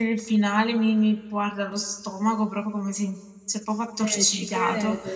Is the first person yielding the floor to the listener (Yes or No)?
Yes